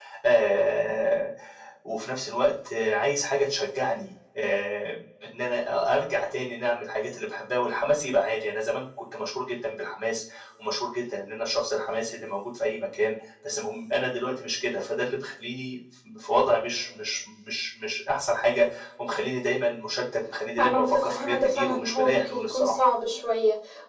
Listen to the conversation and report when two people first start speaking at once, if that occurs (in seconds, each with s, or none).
20.6 s